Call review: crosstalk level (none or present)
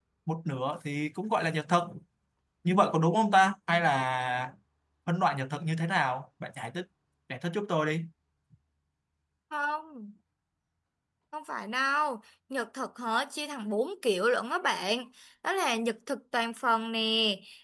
none